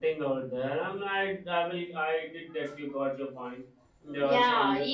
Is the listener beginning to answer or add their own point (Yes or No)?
Yes